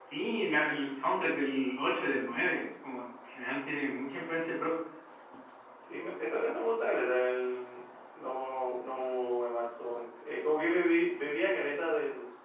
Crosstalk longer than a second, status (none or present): none